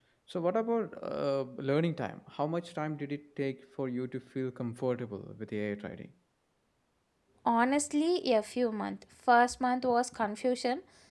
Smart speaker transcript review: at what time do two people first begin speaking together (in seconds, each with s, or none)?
none